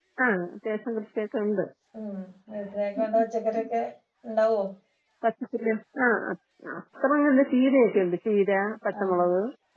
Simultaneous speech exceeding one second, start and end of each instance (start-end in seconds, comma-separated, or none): none